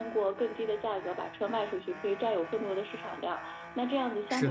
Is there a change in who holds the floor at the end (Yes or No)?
No